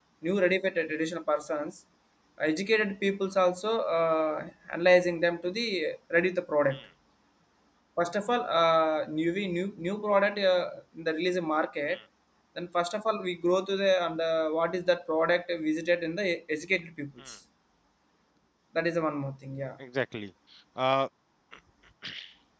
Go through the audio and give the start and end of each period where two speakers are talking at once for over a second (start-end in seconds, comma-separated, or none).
none